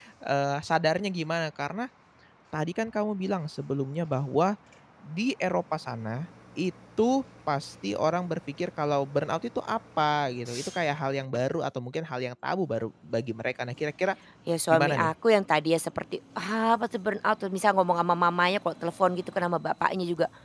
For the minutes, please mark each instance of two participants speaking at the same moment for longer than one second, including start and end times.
none

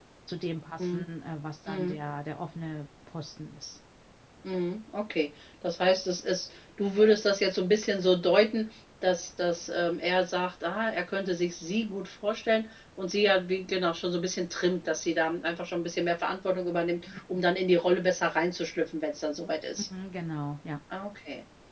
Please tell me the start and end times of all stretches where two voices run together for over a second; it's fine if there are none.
none

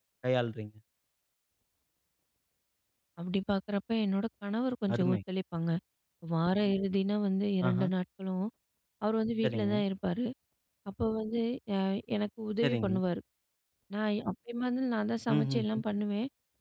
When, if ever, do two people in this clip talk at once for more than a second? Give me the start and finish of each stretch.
none

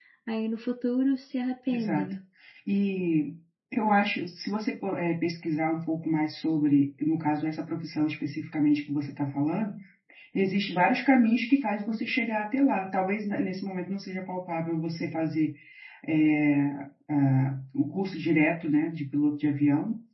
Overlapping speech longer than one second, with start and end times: none

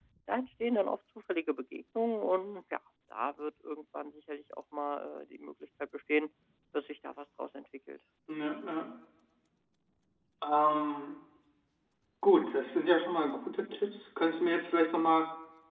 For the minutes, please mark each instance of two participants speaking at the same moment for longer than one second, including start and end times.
none

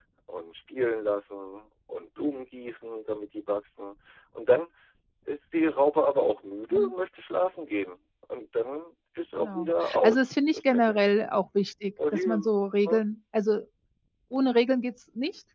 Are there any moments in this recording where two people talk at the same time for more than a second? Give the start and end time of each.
9.4-11.0

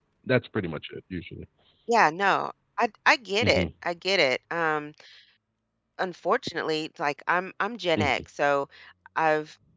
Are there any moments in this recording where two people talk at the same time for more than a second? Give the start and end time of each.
none

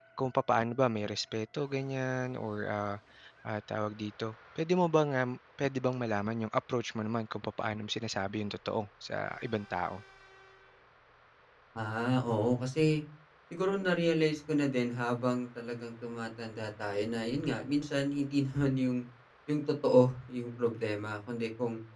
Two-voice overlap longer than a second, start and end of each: none

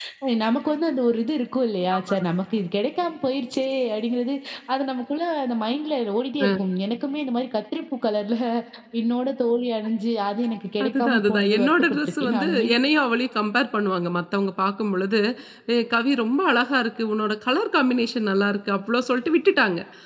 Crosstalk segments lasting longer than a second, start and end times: 10.8-12.7

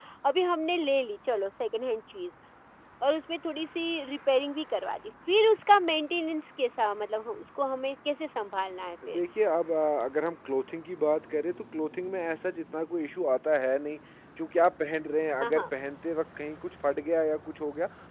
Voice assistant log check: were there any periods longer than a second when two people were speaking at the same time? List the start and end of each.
none

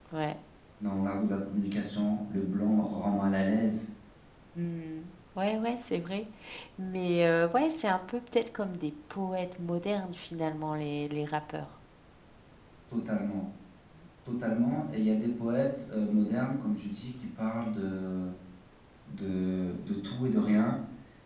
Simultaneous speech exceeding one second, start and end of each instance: none

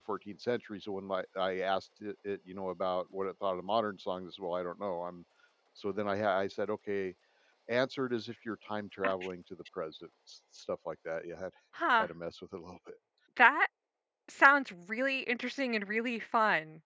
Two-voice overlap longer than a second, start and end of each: none

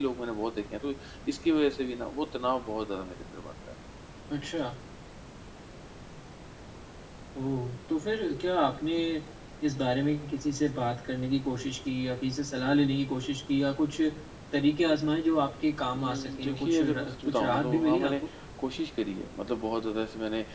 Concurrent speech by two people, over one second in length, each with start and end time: 15.9-18.1

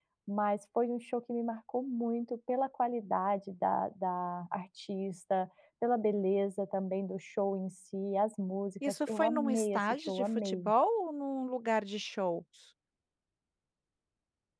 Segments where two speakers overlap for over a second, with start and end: 8.9-10.7

